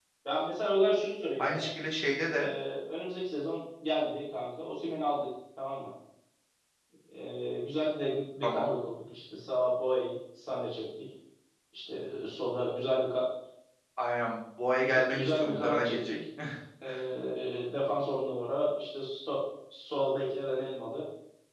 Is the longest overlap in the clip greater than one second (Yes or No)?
Yes